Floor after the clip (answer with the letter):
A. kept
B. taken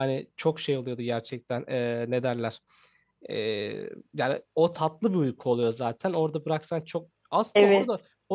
A